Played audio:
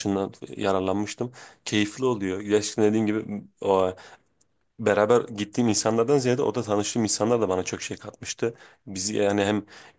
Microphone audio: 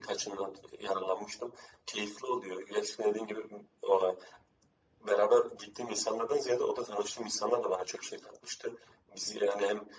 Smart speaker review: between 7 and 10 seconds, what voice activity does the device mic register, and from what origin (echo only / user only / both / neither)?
echo only